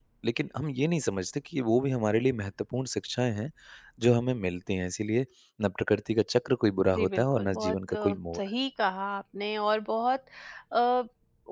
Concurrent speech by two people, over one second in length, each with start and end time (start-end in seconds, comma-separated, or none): 6.9-8.4